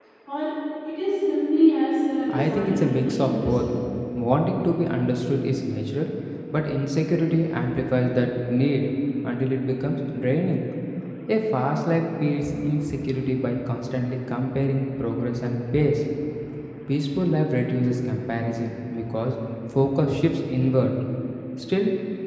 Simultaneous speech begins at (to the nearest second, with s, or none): 2 s